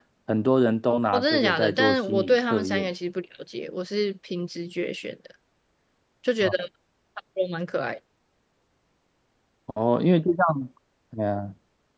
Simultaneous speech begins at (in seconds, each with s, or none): 1.1 s